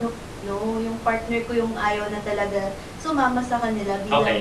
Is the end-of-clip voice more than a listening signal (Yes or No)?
No